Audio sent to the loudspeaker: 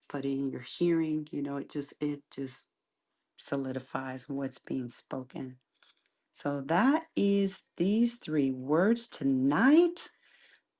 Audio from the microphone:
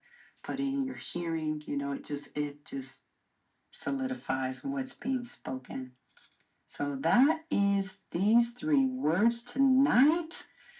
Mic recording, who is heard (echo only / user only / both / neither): echo only